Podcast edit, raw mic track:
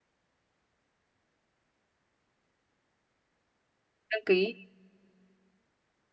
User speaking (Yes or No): Yes